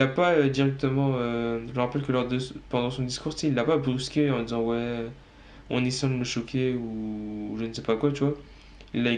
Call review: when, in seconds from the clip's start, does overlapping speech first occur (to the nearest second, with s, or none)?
none